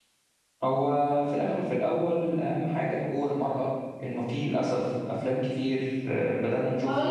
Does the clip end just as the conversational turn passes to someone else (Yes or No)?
Yes